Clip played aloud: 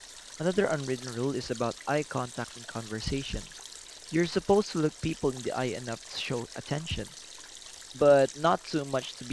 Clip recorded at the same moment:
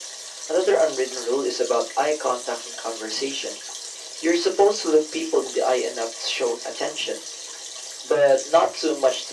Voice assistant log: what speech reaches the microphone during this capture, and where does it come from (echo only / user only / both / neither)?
echo only